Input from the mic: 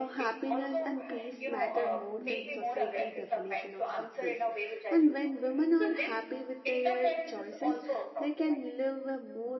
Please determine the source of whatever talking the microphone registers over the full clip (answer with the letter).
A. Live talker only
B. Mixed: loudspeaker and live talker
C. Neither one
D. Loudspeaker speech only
B